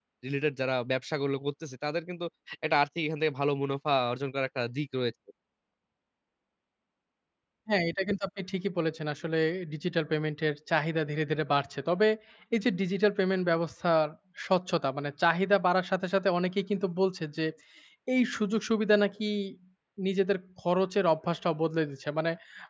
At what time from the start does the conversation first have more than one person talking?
none

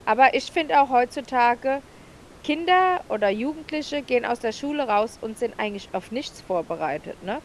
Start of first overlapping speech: none

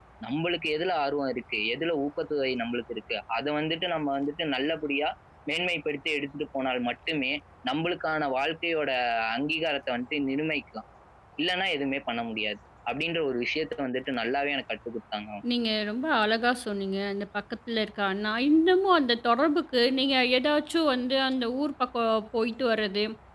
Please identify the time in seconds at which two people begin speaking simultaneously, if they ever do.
none

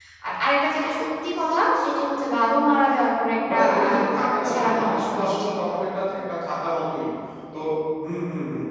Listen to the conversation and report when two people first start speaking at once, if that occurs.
3.5 s

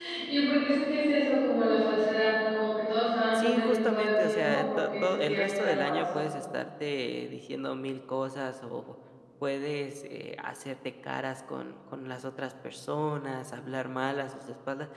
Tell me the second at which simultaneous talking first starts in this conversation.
3.3 s

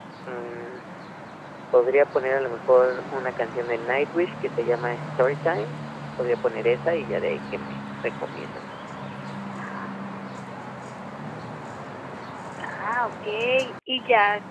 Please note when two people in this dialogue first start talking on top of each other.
none

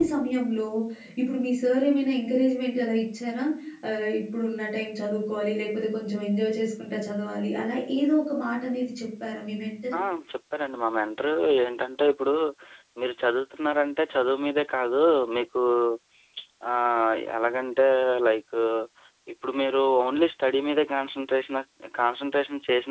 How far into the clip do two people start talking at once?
none

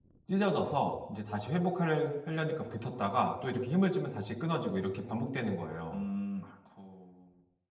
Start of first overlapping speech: none

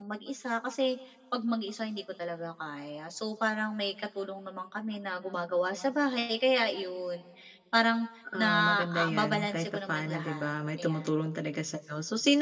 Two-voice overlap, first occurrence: 8.4 s

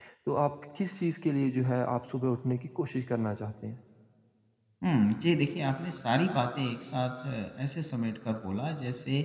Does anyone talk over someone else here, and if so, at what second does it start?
none

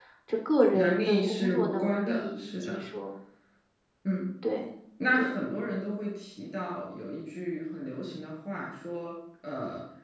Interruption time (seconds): 0.7 s

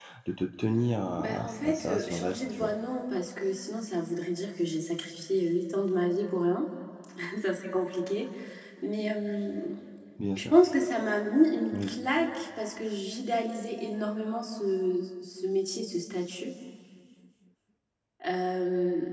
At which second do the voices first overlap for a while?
1.2 s

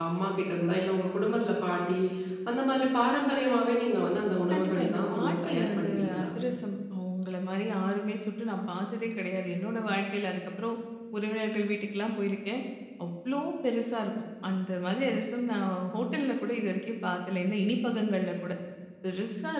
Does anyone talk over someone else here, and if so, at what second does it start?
4.5 s

